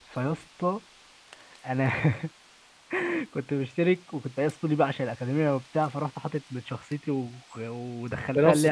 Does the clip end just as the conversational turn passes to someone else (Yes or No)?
No